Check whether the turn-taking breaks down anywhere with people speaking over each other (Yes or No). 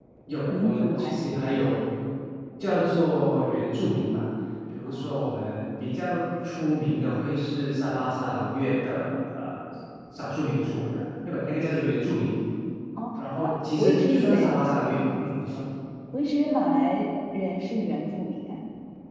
Yes